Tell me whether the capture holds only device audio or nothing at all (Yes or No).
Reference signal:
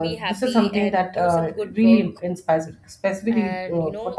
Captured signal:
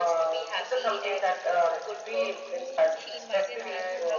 No